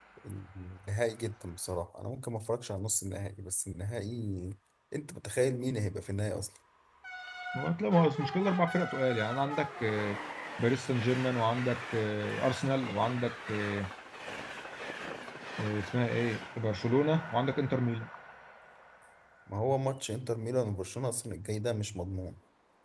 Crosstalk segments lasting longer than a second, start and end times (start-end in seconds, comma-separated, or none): none